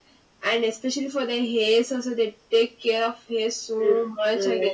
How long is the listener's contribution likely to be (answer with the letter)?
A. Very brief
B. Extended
B